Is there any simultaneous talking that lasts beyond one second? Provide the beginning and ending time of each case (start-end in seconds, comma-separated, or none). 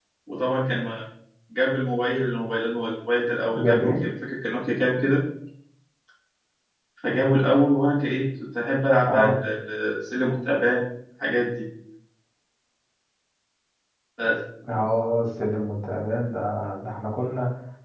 none